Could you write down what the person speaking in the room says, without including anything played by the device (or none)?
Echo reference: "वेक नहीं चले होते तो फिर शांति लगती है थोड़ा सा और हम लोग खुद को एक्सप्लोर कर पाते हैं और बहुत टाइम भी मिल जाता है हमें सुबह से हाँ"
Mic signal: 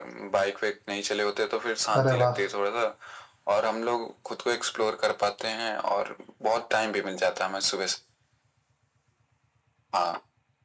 अरे वाह